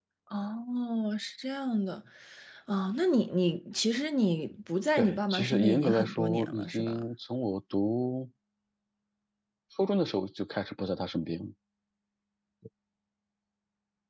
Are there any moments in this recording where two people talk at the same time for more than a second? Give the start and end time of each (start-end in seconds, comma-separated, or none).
5.0-7.0